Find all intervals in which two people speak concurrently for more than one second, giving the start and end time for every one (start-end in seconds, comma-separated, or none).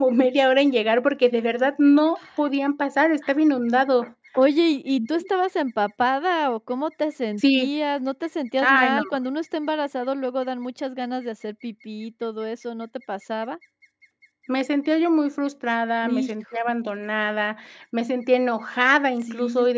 none